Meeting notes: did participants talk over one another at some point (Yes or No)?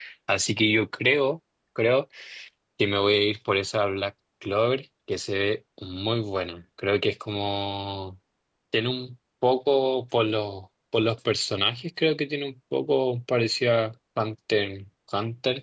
No